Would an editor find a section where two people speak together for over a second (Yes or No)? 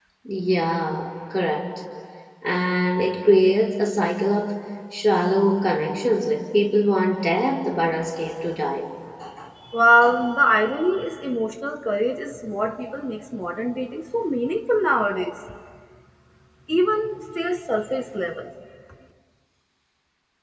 No